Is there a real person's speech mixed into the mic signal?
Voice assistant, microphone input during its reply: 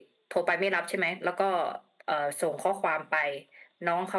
No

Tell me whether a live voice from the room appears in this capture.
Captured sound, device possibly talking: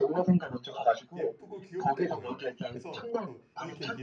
Yes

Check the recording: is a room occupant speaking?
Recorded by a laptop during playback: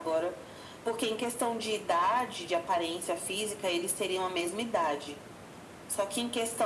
No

